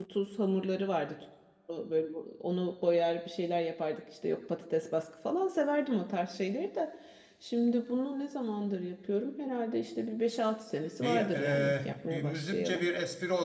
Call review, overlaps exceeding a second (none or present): present